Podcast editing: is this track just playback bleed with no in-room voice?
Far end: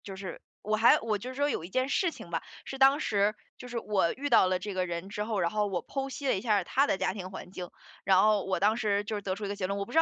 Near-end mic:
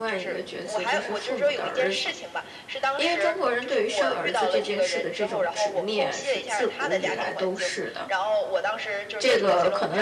No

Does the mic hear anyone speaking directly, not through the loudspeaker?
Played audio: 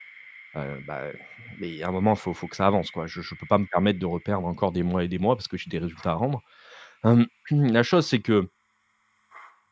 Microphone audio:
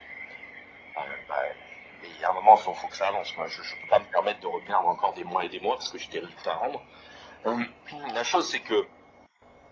No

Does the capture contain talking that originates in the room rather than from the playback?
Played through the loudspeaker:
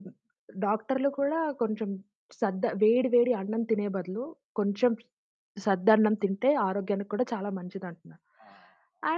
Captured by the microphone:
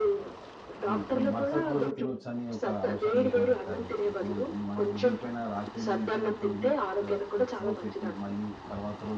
Yes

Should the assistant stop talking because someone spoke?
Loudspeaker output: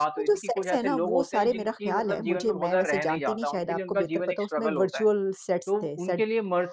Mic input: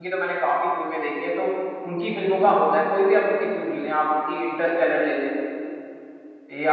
Yes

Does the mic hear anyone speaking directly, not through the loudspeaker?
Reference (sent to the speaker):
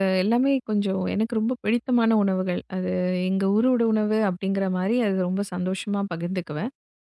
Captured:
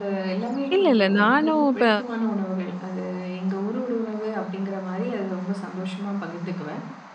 Yes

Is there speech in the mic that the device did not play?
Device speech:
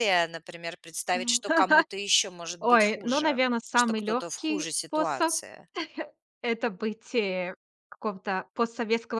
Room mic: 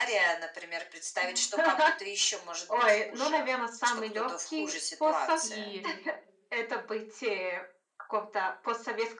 Yes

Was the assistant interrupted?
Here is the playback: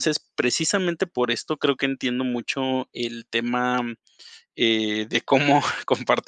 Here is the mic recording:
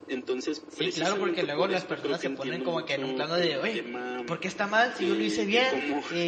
Yes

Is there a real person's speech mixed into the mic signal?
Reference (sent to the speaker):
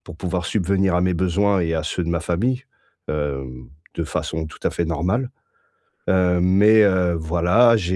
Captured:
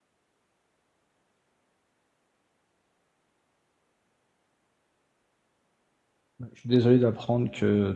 Yes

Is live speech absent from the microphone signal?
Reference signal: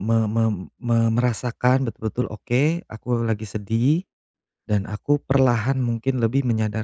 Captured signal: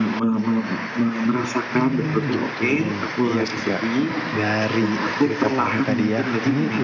No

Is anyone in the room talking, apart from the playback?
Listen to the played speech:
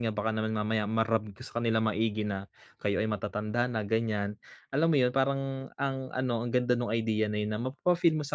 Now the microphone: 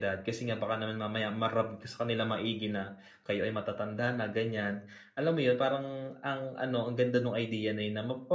No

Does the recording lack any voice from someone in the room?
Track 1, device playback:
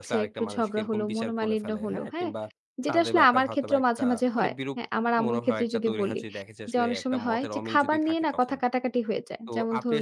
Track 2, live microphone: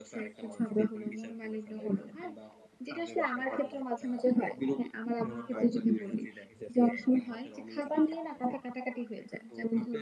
Yes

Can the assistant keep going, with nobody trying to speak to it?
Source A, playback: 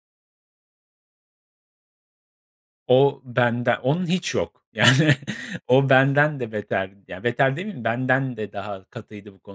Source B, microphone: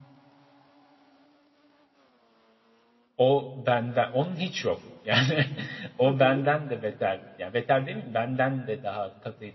No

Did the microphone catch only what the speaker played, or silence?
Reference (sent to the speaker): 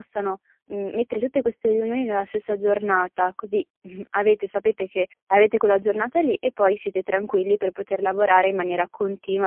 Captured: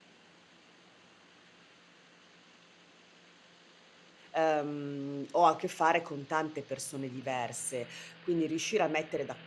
No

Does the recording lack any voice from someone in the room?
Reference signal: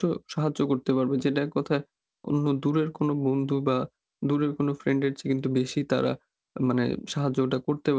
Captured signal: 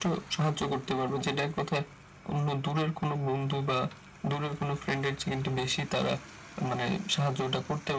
Yes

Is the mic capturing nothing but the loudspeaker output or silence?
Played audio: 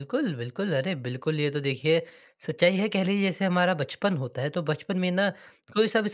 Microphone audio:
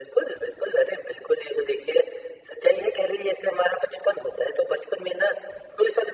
Yes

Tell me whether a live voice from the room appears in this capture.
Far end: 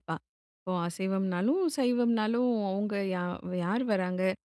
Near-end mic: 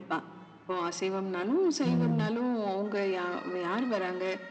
Yes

